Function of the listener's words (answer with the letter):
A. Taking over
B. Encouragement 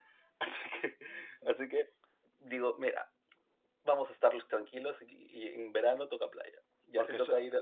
B